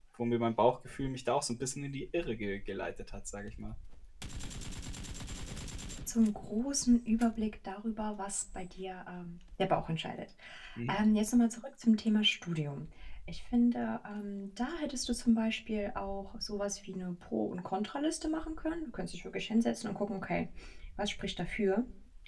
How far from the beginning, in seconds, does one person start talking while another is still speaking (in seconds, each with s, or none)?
none